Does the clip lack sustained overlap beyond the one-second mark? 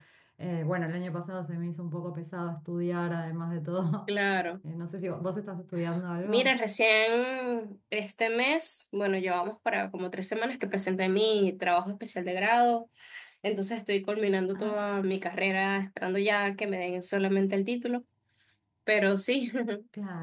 Yes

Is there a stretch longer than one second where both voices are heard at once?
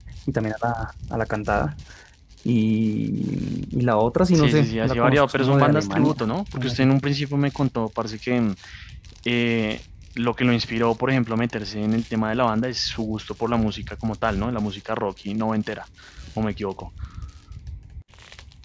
Yes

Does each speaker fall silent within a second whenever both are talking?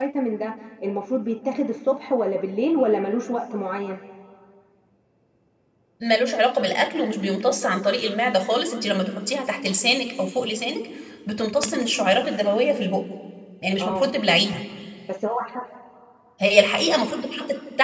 Yes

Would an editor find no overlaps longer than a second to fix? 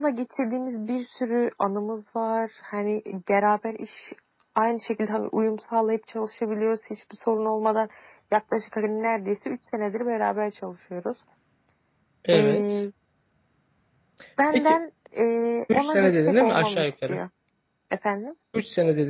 No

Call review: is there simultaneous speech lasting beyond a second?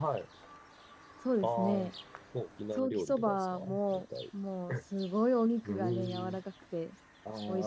Yes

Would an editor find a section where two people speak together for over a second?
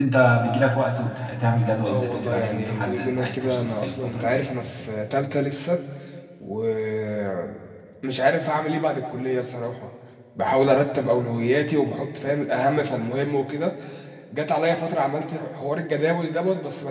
Yes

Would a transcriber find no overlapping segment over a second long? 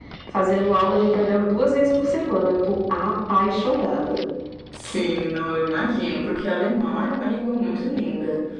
Yes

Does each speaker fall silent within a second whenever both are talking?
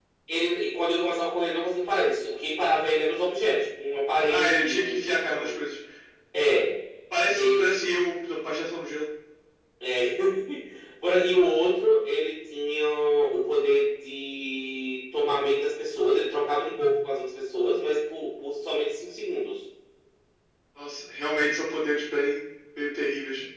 No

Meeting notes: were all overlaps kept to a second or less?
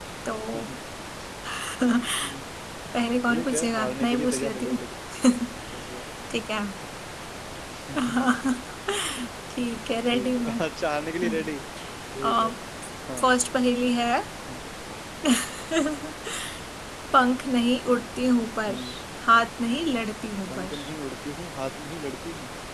No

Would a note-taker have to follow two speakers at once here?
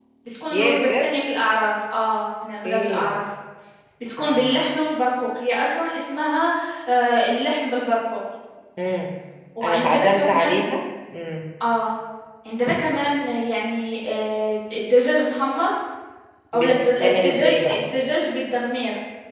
Yes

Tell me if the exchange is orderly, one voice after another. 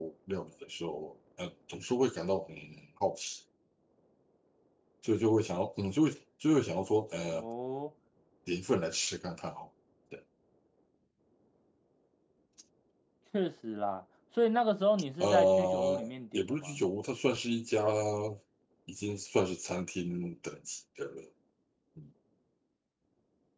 No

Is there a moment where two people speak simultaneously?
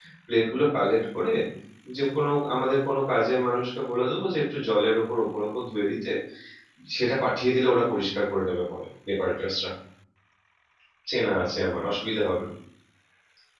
No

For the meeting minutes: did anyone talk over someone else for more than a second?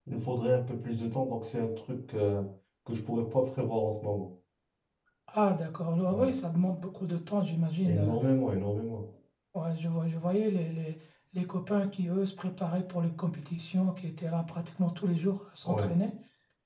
No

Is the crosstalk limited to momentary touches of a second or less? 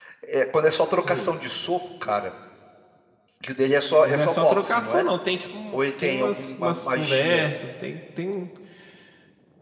No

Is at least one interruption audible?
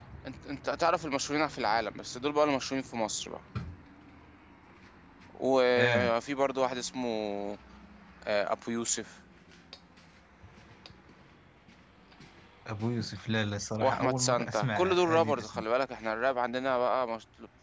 Yes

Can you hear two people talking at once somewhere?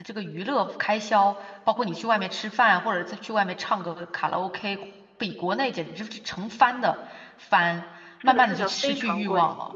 Yes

